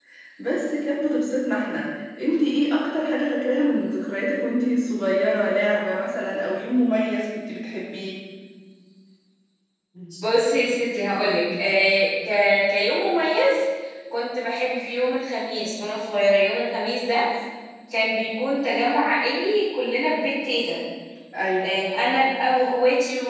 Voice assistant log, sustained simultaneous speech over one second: none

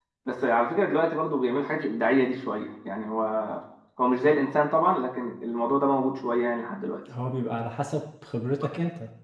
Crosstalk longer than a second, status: none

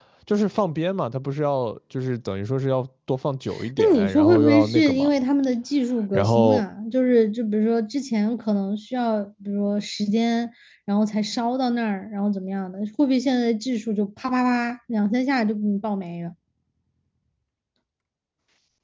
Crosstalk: present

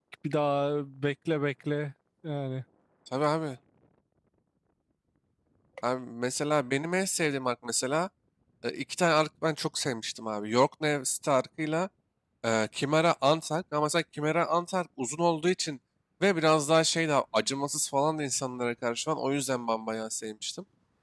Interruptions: none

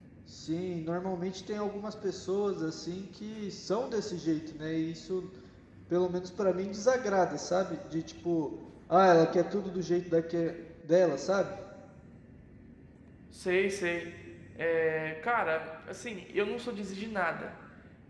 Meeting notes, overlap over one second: none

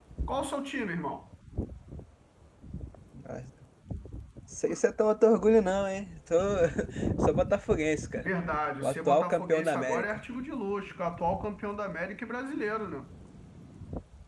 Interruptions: present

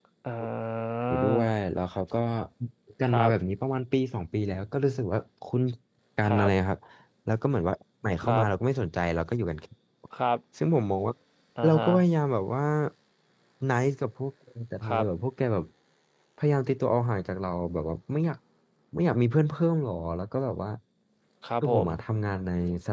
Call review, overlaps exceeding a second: none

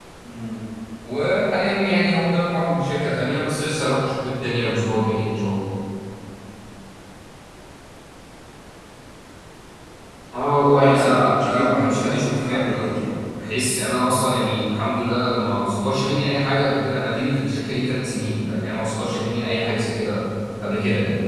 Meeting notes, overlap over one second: present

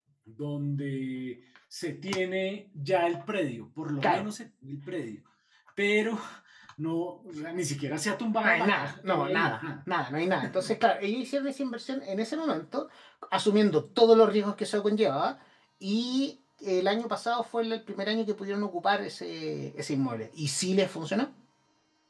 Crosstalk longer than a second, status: present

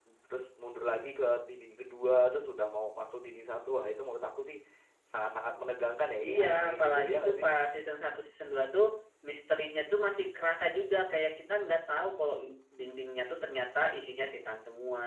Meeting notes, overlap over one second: present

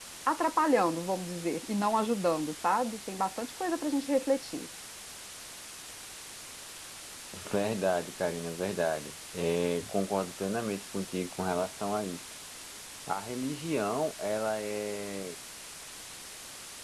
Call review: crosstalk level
none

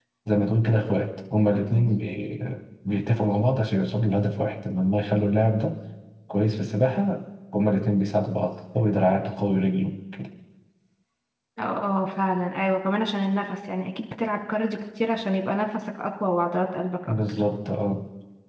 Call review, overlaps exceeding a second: none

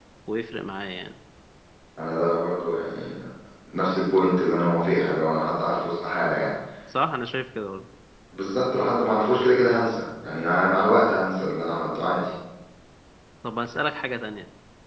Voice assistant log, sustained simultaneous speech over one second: none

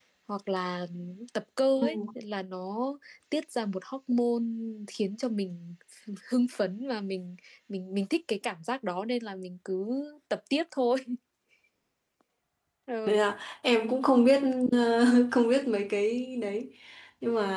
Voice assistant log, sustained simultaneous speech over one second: none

